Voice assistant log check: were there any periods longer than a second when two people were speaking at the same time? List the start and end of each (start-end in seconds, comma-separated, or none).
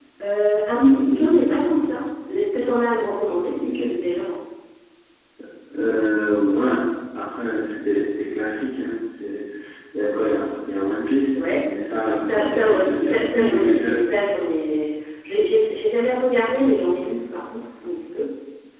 12.2-14.0